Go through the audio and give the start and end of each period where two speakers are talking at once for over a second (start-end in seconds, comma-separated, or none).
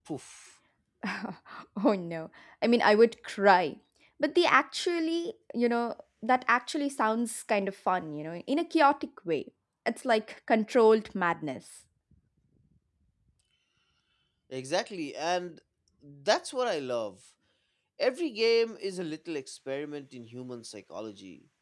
none